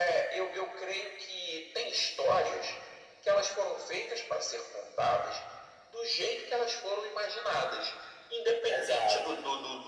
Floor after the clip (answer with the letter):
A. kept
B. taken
A